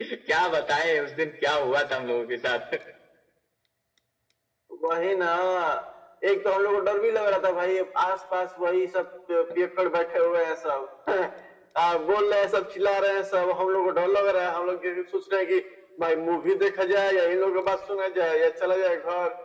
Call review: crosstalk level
none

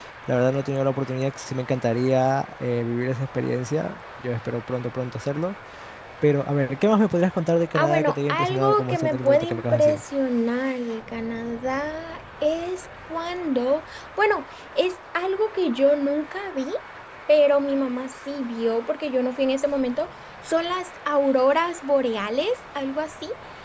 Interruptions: present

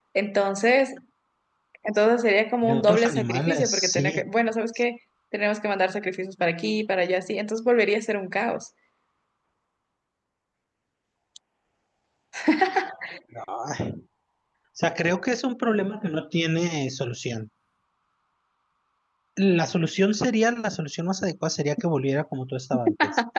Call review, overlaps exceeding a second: present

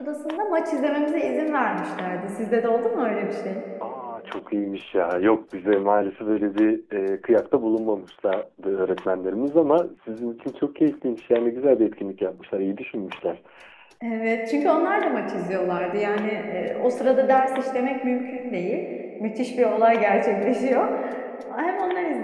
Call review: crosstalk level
none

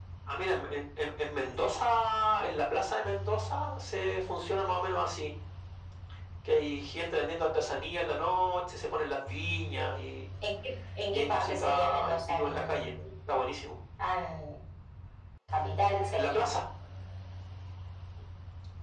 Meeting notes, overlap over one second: present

